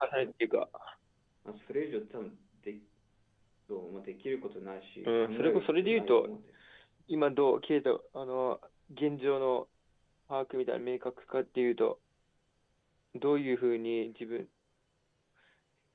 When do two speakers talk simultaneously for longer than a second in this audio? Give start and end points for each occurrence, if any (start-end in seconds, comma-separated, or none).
5.0-6.3